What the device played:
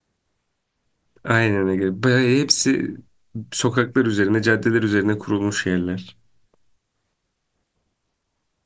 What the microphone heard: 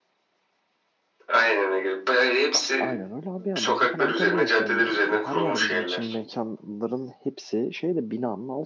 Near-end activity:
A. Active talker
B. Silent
A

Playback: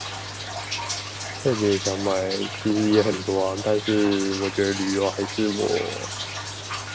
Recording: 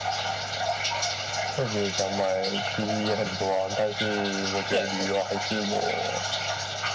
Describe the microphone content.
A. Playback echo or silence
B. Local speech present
B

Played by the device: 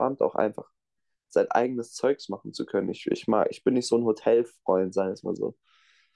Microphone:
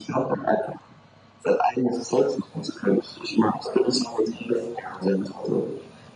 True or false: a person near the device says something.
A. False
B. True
A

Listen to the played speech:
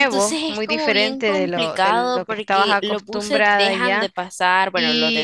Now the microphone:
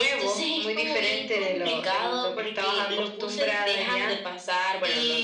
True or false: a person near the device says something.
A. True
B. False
B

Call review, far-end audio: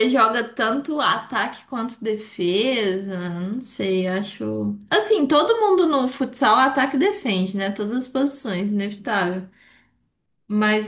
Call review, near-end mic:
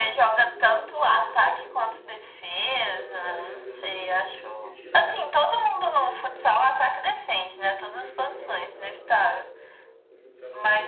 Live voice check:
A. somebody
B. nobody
A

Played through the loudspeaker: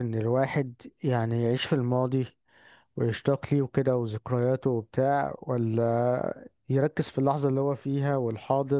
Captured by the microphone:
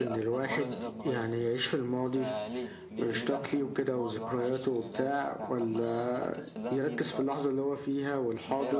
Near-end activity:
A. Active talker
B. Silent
A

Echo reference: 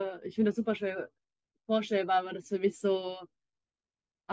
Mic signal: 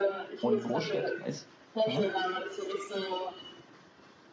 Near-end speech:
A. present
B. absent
A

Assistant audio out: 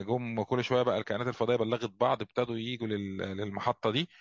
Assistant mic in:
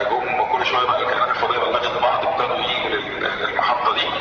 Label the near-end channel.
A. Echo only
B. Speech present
A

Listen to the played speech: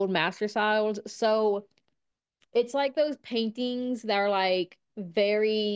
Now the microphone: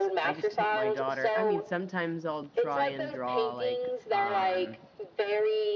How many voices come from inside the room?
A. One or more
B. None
A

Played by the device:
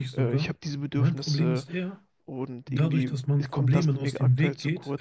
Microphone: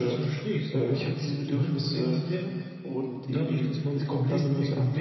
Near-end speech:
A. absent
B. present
A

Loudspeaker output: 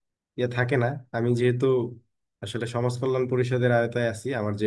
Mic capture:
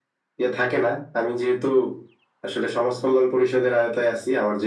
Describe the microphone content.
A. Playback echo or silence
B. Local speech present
A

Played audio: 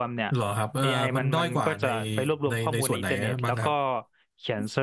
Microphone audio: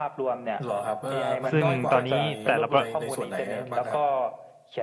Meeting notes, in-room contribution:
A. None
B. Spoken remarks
B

